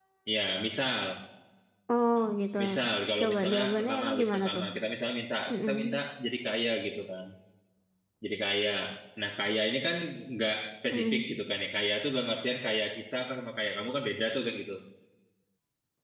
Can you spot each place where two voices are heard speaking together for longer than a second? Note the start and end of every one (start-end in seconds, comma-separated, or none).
3.2-4.6